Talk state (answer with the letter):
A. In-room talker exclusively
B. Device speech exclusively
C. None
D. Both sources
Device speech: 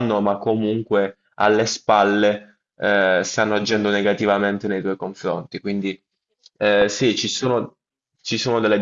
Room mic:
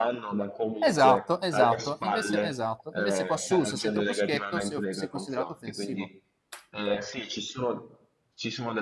D